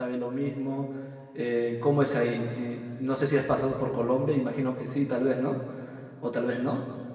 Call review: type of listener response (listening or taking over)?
listening